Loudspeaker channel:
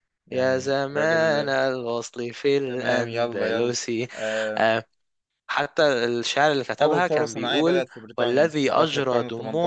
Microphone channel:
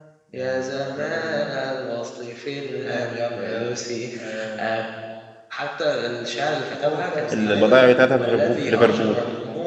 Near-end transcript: البضائع بتاعتها في ليفربول في ليفربول

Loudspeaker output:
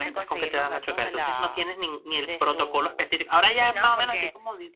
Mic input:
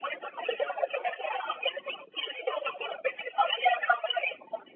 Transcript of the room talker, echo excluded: none

